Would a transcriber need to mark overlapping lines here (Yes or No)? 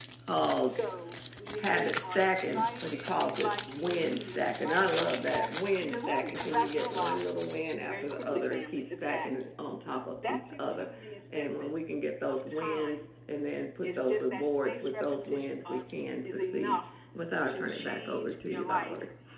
Yes